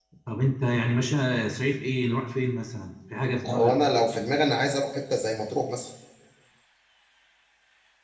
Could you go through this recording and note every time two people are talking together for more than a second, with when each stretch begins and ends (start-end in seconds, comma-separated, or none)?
none